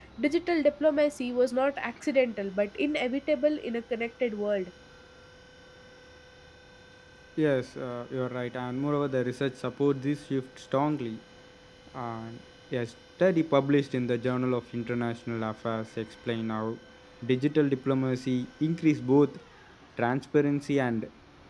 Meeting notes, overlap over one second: none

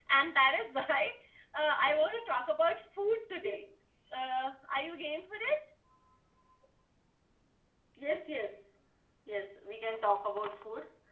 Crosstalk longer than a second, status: none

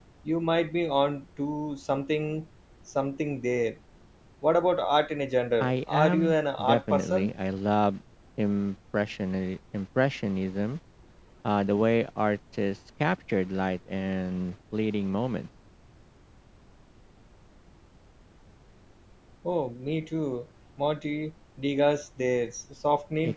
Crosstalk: present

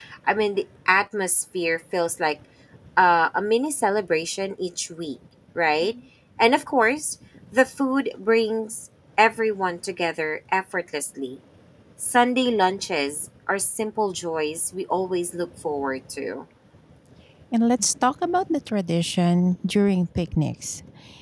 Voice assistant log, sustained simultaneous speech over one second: none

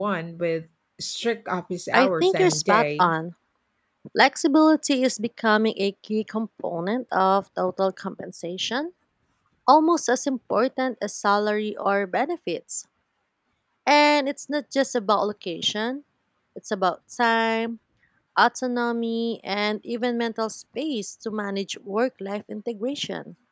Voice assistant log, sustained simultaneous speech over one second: present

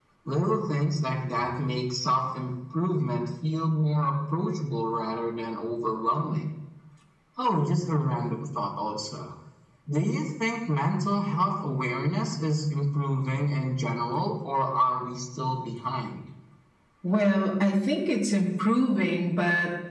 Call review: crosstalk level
none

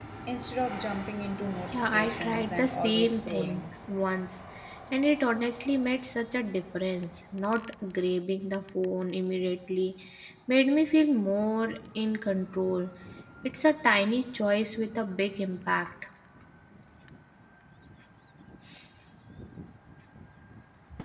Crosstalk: present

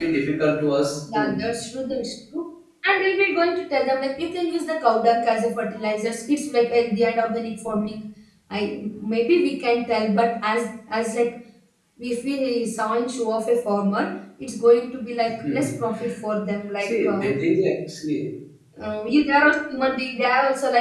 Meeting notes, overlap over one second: none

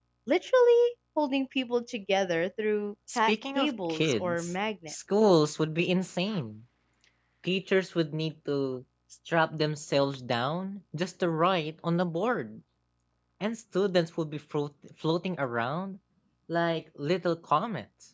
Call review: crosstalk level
present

